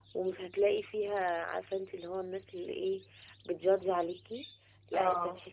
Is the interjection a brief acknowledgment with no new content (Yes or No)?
Yes